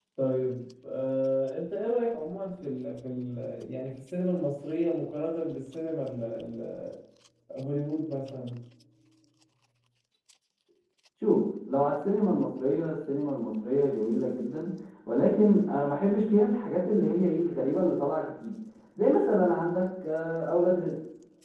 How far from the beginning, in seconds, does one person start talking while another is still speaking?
none

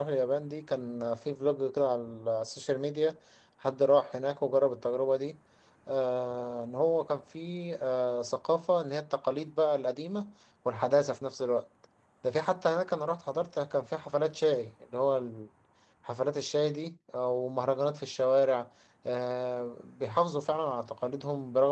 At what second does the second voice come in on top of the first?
none

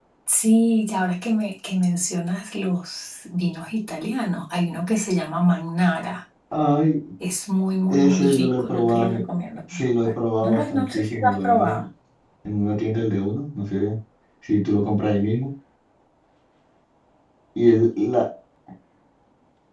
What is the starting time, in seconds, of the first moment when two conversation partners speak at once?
7.9 s

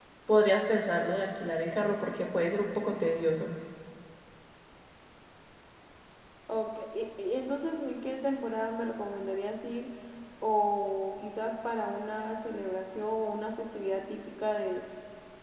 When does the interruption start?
none

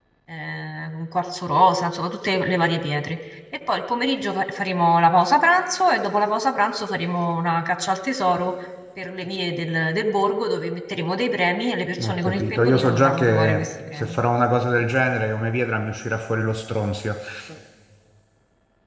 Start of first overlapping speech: 12.0 s

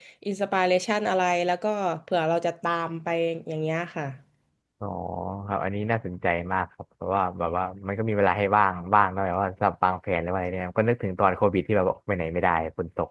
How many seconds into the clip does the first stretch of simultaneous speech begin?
none

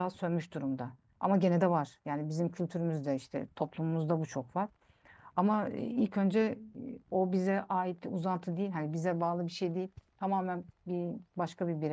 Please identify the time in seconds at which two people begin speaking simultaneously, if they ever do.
none

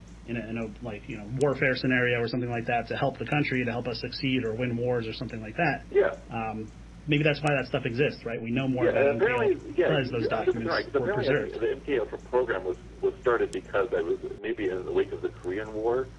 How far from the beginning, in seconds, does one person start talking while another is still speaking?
8.8 s

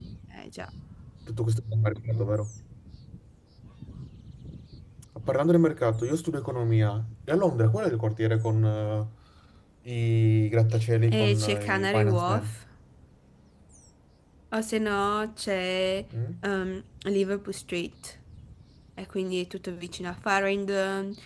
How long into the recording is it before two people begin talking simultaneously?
11.1 s

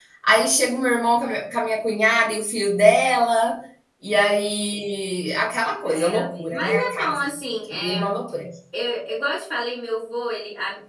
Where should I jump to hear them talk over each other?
5.8 s

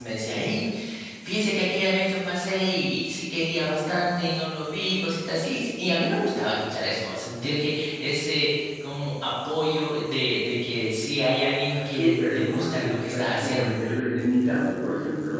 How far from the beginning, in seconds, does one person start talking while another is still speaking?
11.7 s

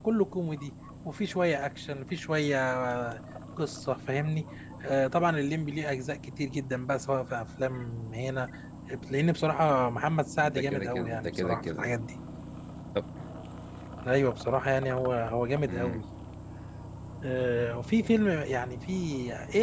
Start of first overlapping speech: 10.4 s

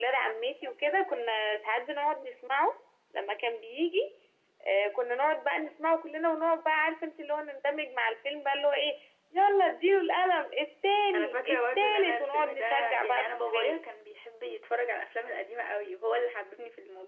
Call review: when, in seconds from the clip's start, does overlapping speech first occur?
11.1 s

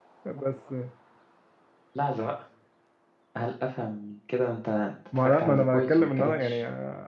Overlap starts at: 5.1 s

